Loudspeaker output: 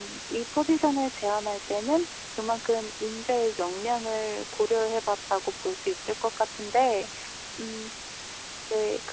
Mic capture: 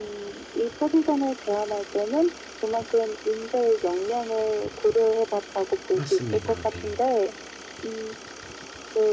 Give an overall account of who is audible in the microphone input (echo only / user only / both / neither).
both